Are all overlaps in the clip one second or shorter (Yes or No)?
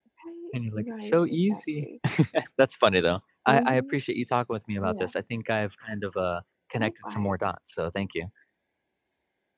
No